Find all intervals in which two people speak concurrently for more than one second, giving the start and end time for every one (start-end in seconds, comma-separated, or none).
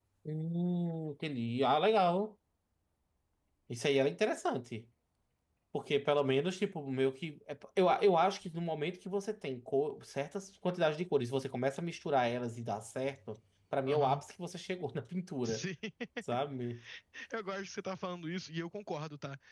none